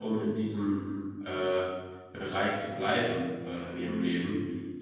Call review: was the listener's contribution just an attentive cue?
Yes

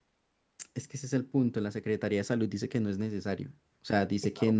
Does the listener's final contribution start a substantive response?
No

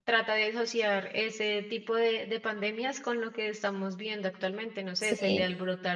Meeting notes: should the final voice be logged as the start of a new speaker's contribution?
No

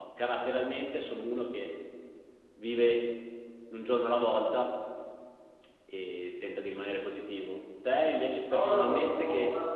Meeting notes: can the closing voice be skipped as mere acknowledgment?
No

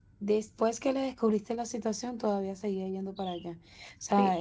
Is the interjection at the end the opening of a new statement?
No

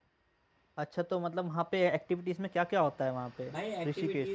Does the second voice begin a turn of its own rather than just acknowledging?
Yes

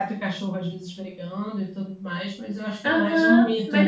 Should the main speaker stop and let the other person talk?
Yes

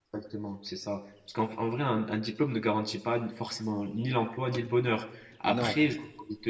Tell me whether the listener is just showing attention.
Yes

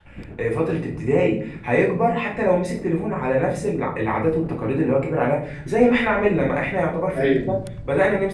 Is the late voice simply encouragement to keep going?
Yes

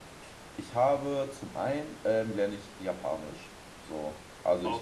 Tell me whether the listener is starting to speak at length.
No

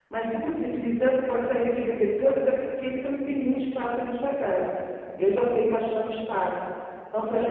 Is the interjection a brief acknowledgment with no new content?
No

